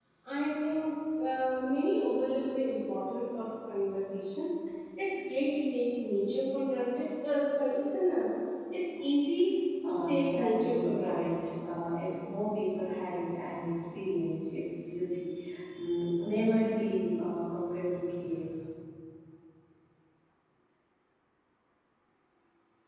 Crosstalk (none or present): present